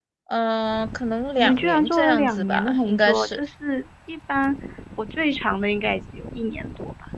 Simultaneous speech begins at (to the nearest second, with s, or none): 1 s